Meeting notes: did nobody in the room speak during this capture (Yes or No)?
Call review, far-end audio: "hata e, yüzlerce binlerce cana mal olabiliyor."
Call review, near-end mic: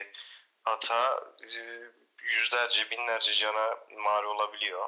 Yes